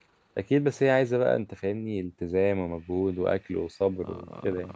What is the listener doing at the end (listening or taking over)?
taking over